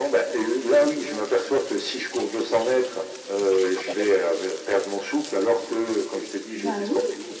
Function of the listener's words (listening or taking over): listening